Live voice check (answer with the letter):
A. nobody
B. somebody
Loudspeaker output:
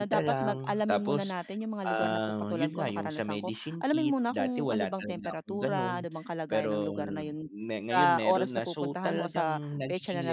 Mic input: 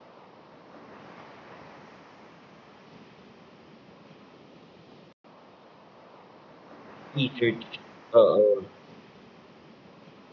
B